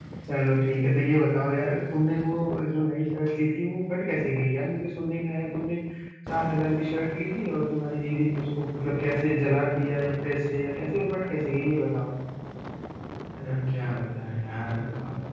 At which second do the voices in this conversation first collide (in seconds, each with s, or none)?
none